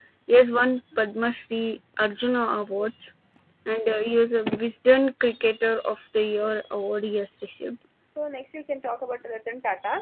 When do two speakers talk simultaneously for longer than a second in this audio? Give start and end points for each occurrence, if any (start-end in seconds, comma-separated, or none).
none